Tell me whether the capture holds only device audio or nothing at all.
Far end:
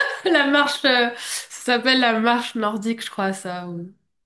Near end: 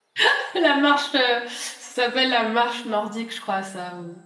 Yes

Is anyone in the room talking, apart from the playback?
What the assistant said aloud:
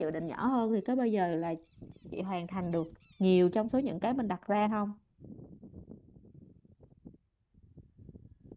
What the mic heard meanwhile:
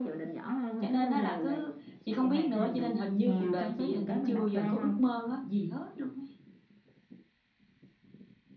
Yes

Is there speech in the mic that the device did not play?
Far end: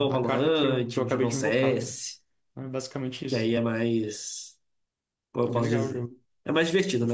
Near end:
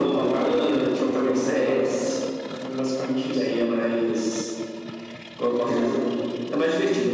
No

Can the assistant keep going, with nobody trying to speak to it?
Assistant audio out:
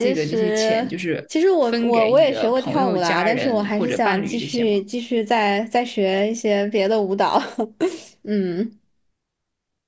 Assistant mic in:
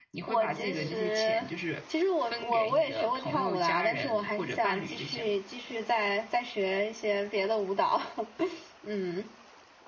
No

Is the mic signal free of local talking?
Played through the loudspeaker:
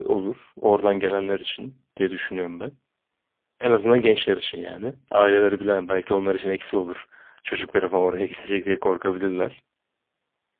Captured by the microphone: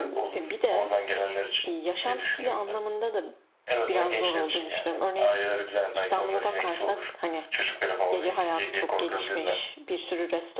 No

